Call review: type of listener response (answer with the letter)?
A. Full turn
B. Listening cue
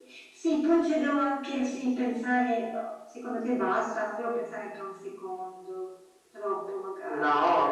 A